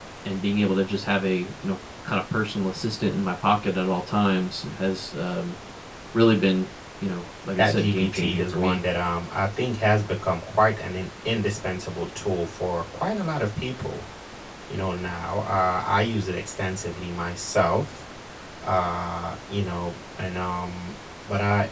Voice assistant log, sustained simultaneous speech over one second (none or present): present